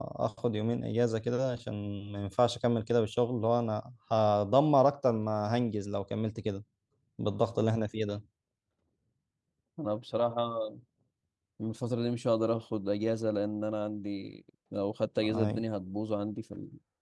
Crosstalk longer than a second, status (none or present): none